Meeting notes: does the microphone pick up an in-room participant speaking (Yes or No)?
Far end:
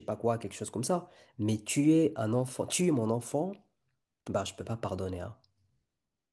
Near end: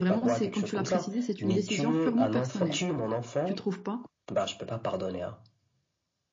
Yes